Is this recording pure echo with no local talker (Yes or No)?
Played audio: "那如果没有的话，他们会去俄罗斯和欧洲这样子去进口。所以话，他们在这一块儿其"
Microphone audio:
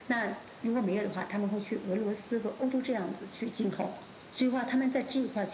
Yes